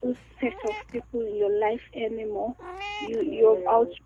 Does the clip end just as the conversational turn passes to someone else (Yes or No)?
No